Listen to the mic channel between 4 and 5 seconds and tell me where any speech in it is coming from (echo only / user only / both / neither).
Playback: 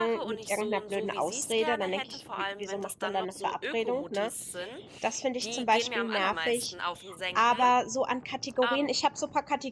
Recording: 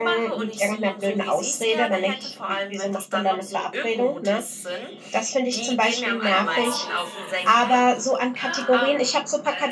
echo only